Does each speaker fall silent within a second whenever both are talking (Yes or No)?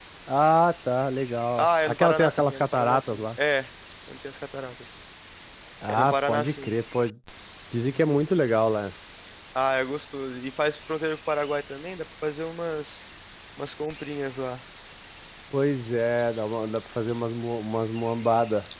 No